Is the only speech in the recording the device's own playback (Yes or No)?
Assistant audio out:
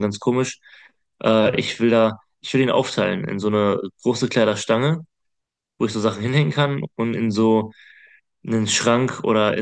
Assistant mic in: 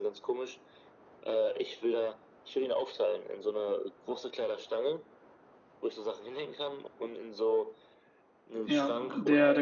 No